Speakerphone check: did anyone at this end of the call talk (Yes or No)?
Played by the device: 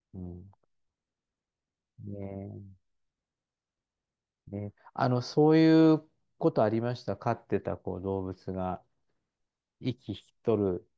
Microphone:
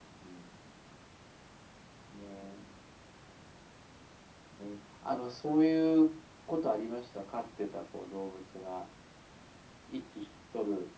No